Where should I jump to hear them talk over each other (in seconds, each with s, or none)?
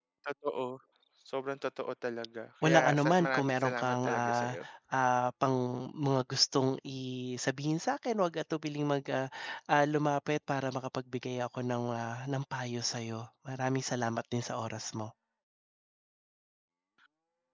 2.6 s